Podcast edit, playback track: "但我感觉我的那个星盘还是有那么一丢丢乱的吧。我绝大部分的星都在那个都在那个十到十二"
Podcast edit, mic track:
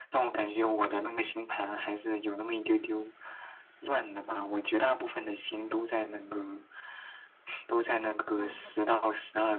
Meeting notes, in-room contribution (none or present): present